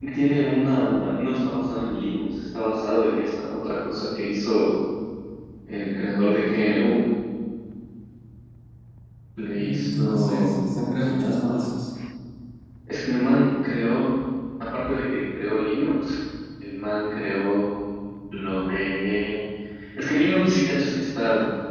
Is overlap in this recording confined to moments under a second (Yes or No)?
No